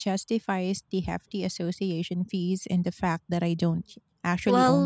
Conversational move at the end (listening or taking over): taking over